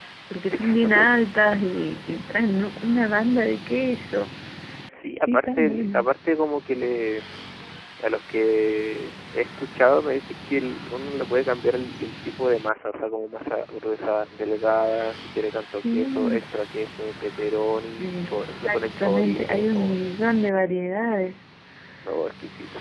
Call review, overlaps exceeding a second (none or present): present